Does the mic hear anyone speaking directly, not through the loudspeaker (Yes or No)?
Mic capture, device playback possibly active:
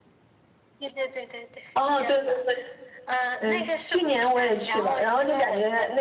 Yes